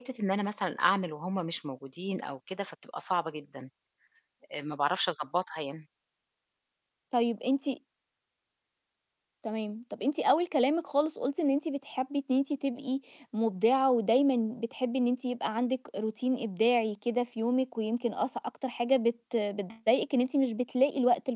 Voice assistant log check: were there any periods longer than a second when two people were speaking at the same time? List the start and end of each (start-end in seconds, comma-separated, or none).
none